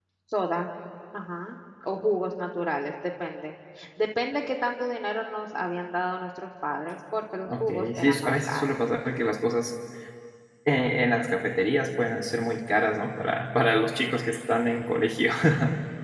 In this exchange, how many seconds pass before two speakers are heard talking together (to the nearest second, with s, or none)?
7 s